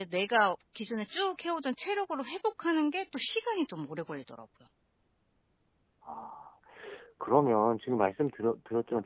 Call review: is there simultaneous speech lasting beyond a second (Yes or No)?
No